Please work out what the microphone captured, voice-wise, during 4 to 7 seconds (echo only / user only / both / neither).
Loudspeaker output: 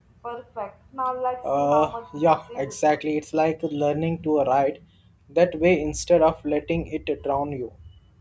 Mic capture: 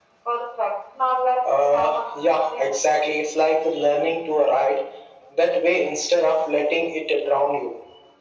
echo only